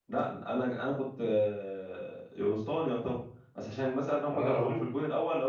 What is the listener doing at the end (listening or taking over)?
listening